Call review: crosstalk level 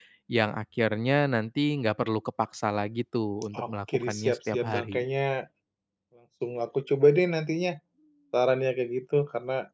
present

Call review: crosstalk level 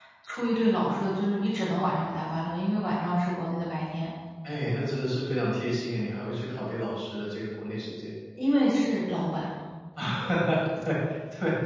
none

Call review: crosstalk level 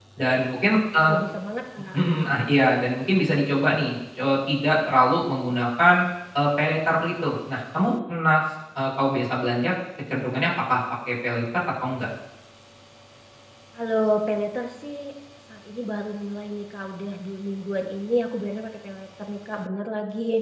none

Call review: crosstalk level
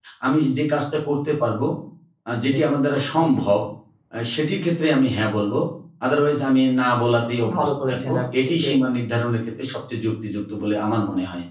present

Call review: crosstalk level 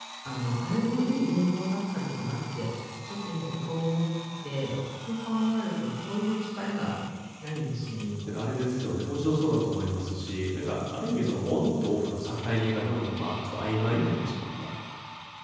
none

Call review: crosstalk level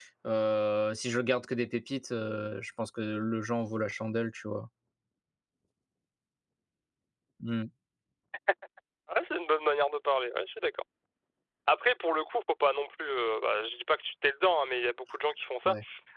none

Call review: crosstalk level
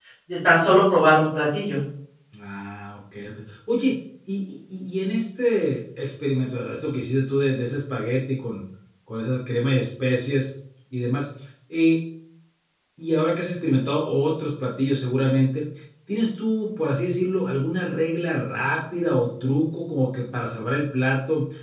none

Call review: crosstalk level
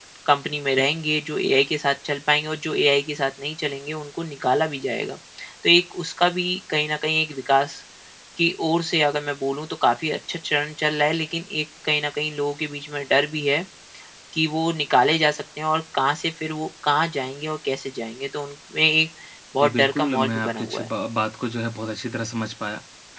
present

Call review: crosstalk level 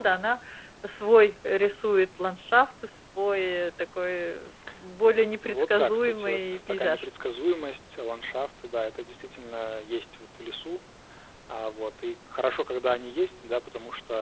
present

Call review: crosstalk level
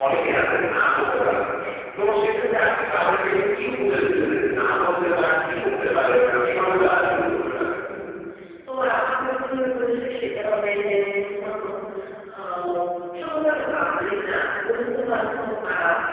none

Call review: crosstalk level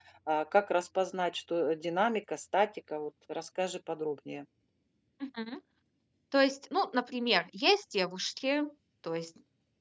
none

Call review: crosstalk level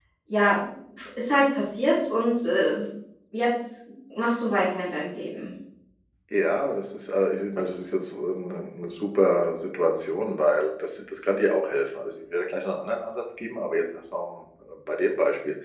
none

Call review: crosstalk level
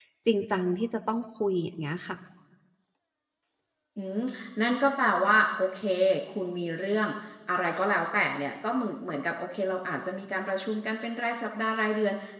none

